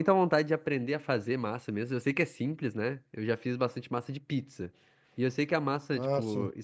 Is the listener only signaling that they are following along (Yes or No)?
Yes